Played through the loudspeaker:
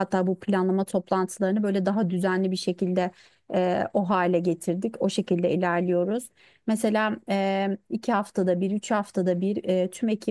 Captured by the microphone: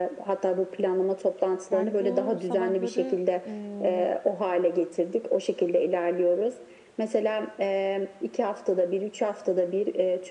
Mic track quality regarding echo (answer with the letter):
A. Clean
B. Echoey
B